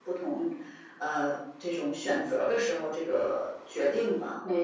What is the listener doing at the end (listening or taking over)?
taking over